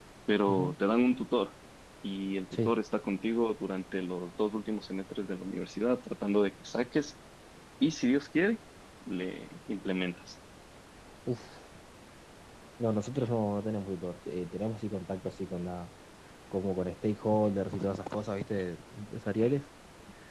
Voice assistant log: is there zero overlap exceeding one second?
Yes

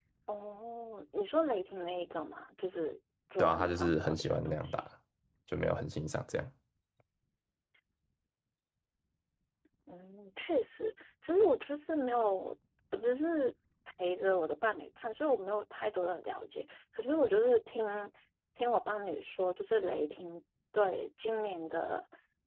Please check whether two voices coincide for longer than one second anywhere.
Yes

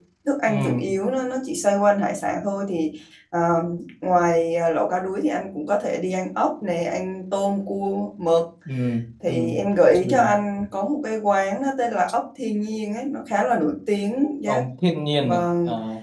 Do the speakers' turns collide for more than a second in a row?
No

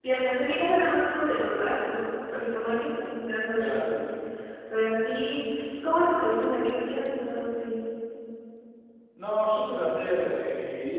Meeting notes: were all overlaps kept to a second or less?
Yes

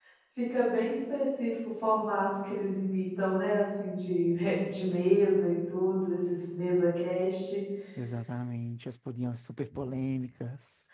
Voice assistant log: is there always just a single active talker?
Yes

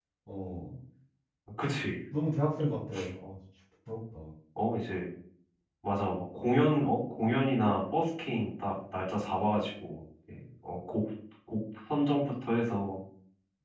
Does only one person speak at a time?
Yes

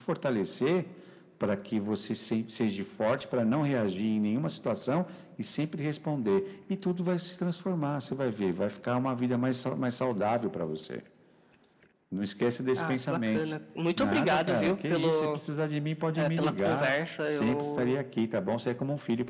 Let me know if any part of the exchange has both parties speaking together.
Yes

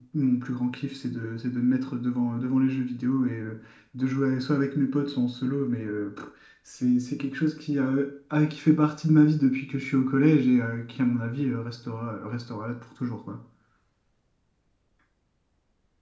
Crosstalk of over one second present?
No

